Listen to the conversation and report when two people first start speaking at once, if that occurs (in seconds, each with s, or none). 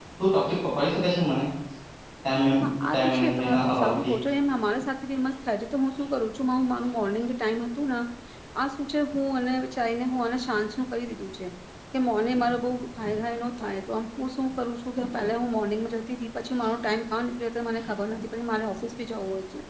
2.6 s